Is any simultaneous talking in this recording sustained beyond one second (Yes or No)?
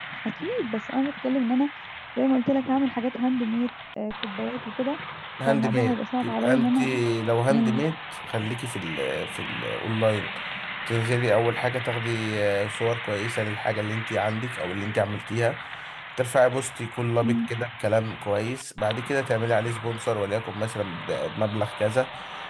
Yes